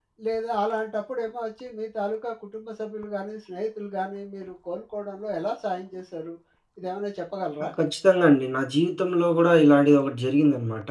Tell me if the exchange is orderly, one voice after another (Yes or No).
Yes